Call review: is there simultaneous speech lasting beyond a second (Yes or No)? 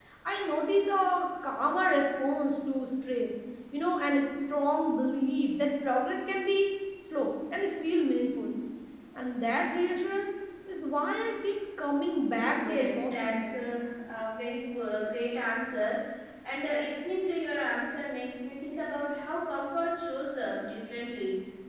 Yes